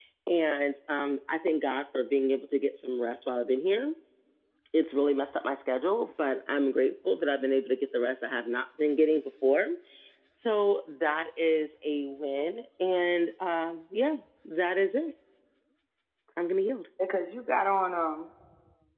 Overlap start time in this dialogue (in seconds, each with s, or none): none